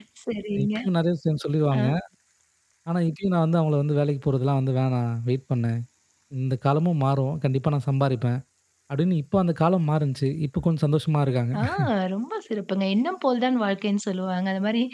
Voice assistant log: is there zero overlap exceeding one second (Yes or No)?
Yes